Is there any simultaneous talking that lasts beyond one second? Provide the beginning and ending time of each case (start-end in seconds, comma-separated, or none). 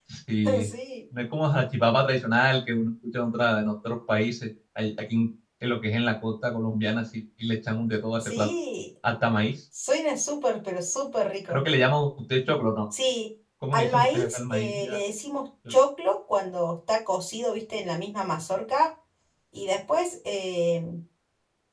13.7-15.0